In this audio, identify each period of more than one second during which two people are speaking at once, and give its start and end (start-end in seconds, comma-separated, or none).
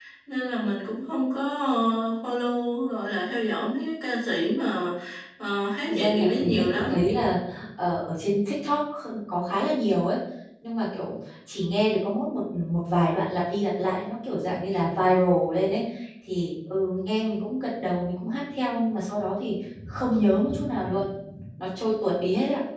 5.9-7.1